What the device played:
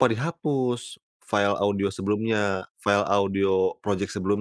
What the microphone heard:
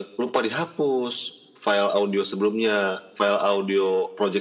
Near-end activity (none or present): none